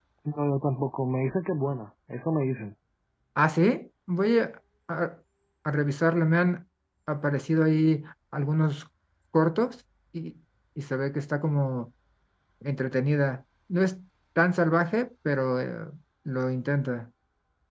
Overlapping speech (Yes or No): No